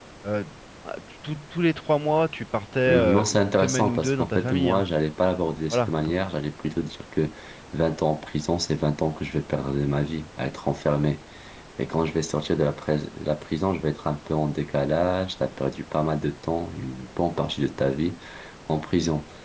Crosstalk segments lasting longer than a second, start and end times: 2.9-4.8

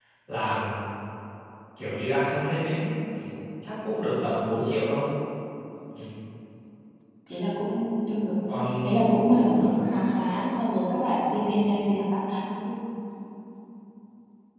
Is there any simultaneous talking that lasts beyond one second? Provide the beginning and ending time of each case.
none

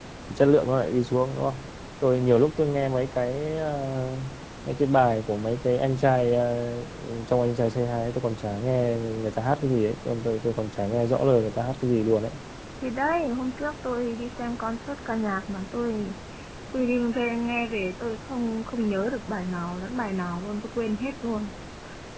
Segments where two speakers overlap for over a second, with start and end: none

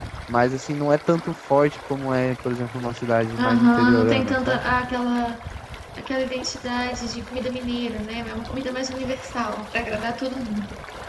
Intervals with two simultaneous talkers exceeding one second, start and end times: 3.4-4.6

